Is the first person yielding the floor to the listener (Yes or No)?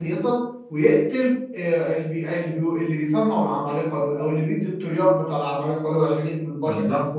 No